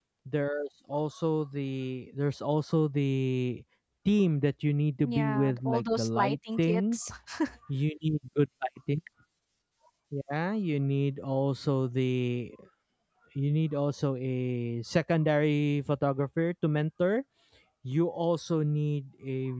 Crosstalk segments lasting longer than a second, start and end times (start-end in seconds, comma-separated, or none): 5.0-7.0